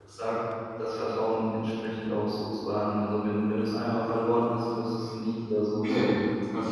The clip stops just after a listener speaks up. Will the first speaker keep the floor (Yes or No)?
No